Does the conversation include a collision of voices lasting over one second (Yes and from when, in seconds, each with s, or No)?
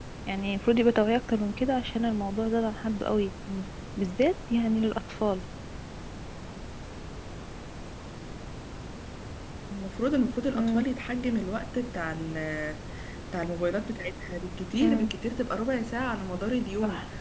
No